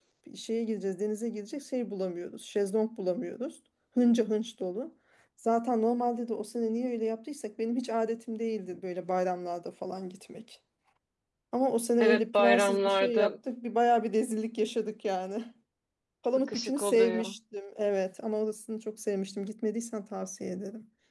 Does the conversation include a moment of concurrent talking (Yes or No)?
Yes